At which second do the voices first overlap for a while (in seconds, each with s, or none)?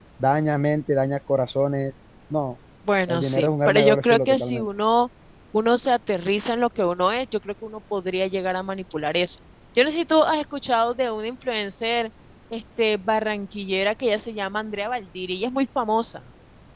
3.1 s